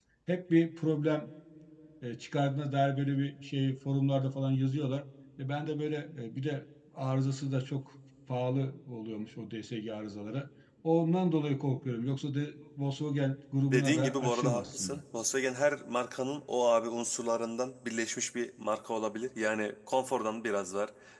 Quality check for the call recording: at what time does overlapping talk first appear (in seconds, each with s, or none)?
13.6 s